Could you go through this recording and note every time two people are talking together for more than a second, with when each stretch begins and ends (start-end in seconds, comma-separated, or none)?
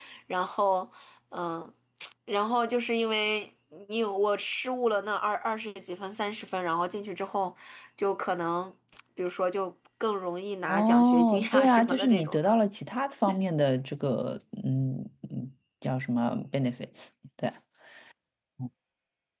10.7-12.6